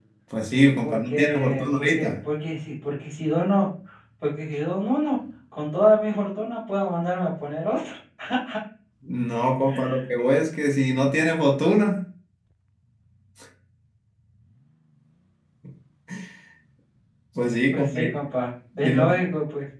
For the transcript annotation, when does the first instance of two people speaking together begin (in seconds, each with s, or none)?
0.8 s